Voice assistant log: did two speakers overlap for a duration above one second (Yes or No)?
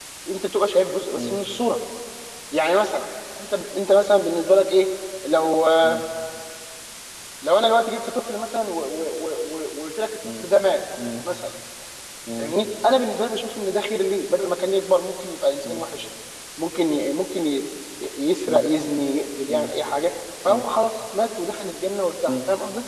No